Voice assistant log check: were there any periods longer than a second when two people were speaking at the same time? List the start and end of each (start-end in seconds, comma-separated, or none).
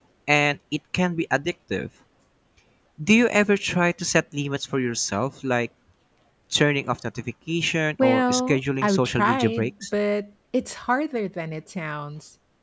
8.0-9.7